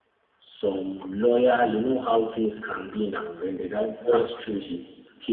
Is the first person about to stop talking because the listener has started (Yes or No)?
No